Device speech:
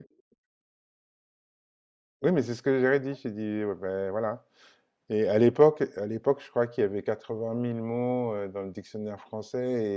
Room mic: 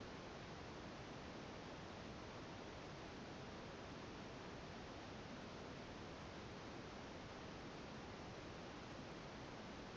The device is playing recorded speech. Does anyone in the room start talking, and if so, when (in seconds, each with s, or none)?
none